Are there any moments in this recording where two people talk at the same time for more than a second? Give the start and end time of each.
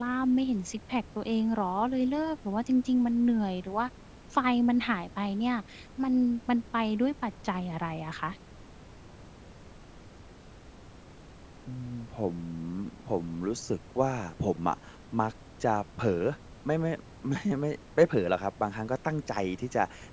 none

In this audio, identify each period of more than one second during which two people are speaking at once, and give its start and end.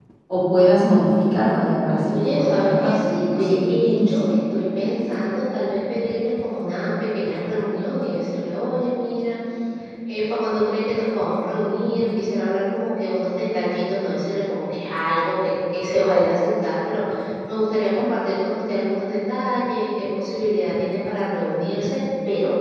2.1-4.2

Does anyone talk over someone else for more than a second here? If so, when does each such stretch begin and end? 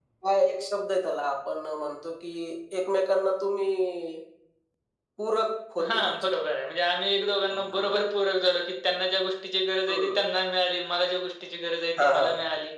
none

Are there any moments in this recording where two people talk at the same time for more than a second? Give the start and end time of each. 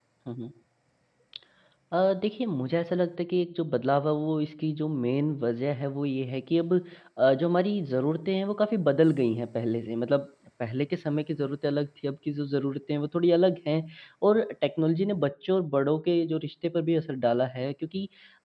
none

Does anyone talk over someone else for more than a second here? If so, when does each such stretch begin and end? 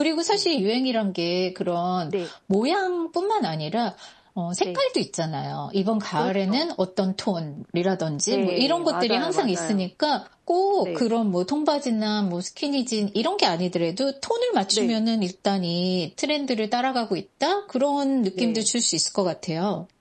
8.3-9.9

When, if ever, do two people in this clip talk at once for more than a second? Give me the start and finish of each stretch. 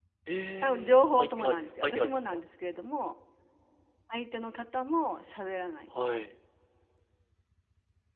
0.6-2.4

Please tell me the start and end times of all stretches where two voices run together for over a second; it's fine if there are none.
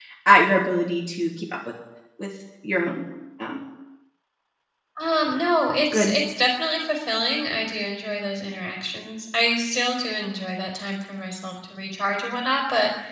none

